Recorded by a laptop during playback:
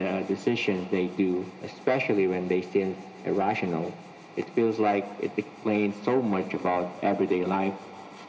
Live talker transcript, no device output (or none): none